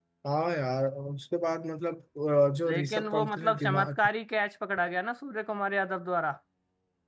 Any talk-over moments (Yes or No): Yes